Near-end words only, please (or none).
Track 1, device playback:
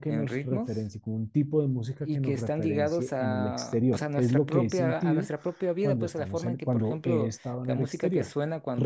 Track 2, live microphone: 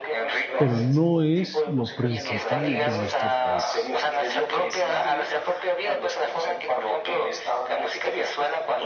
pero no es lo principal de nuestros países.